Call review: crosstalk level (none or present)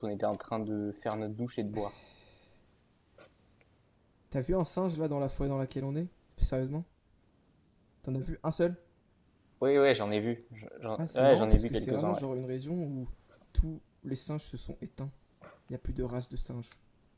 present